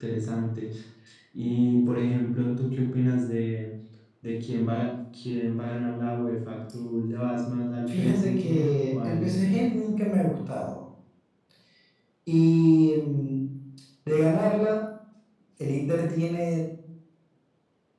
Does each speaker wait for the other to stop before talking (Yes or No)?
No